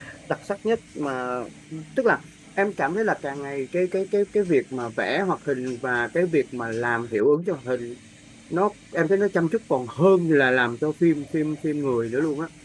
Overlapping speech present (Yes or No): No